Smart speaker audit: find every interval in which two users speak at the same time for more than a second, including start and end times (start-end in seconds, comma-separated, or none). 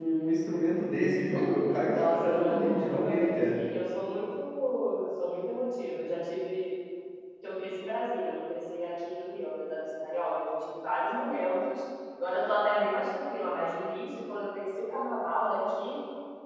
1.9-3.5